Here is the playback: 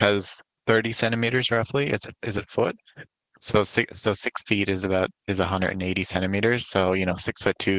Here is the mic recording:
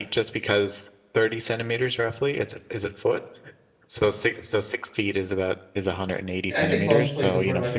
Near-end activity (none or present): present